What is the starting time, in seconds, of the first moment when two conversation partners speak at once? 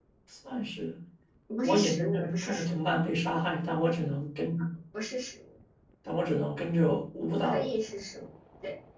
2 s

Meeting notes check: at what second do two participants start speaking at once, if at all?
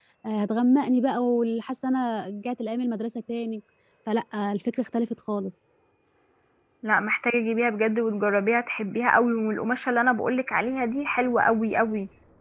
none

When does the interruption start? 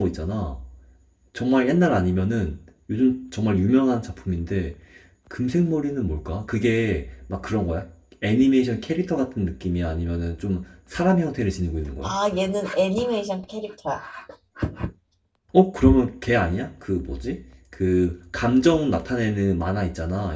none

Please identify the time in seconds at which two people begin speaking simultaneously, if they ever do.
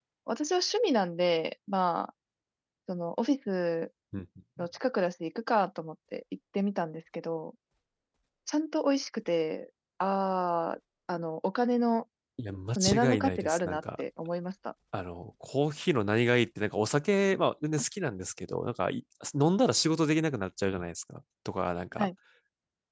13 s

